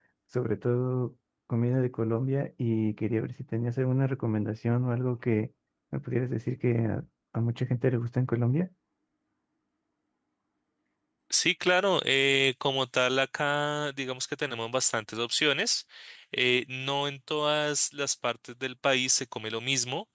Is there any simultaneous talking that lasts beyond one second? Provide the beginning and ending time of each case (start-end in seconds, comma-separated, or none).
none